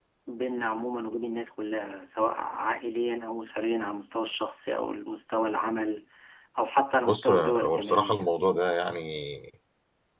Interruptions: present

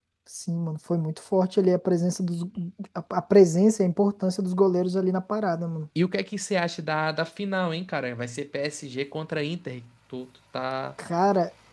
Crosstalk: none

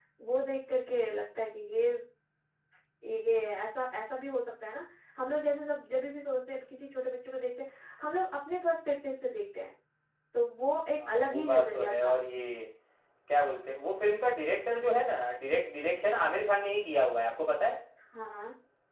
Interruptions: present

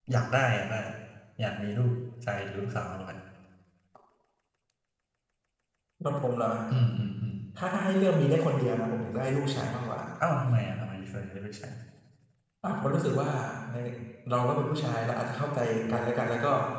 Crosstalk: none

